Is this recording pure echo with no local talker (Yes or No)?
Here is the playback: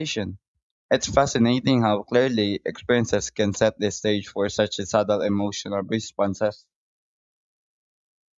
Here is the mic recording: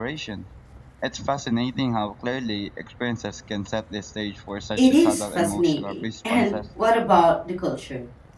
No